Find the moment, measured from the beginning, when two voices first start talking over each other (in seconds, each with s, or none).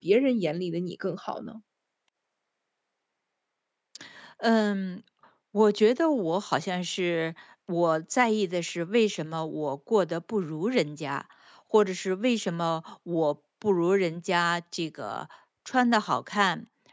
none